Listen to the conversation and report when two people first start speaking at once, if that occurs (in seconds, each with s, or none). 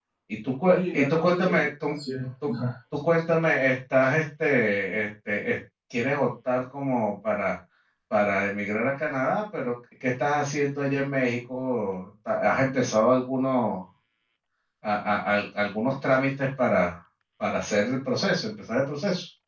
0.7 s